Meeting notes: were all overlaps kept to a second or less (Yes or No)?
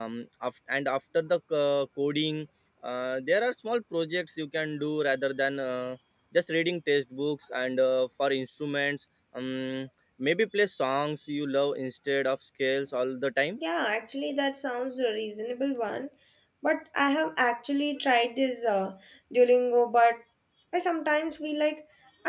Yes